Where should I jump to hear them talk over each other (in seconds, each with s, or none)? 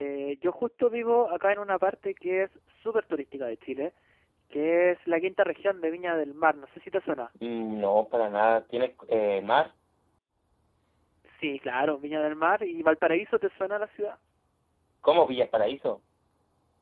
none